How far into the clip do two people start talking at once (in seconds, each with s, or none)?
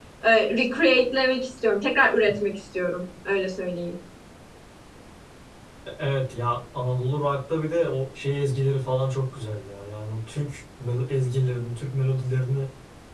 none